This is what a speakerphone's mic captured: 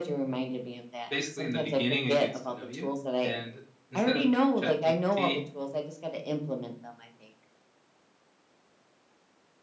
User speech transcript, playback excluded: basically, in the beginning, it gets to know you, and instead of Ch- ChatGPT,

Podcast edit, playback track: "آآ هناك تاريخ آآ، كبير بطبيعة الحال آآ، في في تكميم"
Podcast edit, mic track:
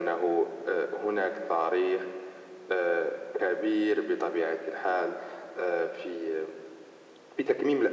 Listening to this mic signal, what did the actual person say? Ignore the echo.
none

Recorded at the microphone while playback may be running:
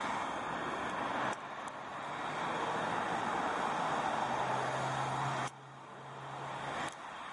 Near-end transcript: none

